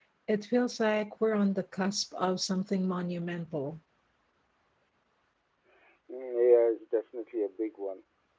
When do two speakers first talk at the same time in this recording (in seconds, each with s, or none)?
none